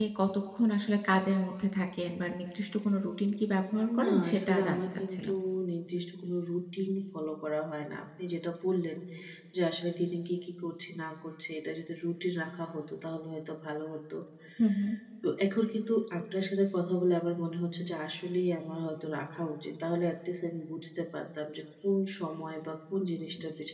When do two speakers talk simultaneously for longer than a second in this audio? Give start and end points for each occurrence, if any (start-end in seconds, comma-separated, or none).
4.0-5.3